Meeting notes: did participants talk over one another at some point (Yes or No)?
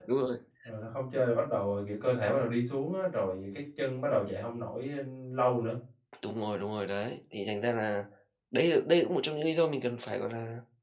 No